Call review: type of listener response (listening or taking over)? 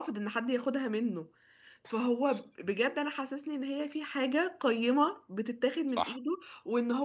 listening